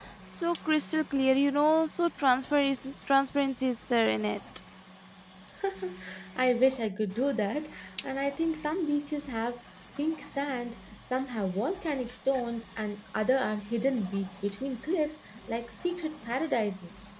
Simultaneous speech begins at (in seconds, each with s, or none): none